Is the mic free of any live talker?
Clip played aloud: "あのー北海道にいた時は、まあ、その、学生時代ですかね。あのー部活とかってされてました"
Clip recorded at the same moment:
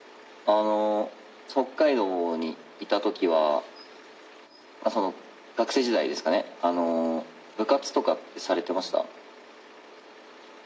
Yes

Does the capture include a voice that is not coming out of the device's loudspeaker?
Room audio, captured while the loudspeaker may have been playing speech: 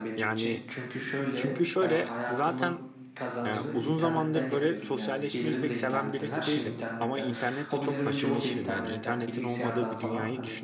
Yes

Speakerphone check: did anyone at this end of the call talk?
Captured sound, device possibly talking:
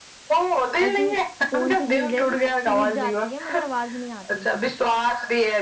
Yes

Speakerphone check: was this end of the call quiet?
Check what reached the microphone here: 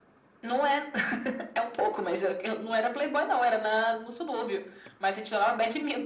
Yes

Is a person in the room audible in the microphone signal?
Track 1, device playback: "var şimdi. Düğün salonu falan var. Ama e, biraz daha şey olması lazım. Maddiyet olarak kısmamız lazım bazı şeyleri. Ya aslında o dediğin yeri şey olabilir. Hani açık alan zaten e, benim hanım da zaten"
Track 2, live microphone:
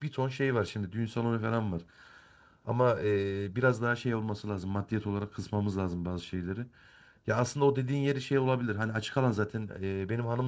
No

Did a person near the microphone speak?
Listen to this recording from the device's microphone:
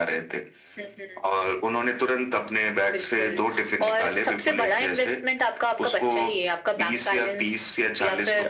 No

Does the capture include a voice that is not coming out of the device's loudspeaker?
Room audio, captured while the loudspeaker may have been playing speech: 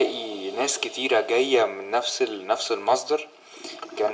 No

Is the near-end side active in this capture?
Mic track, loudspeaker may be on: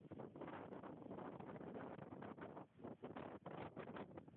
No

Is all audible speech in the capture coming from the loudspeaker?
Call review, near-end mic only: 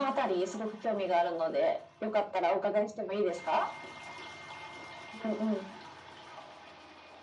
Yes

